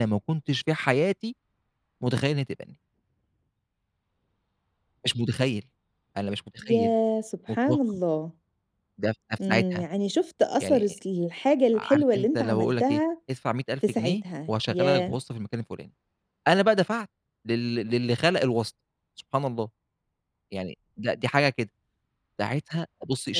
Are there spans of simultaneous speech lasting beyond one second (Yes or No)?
Yes